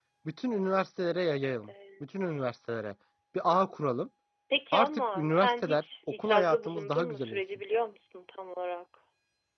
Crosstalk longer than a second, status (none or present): present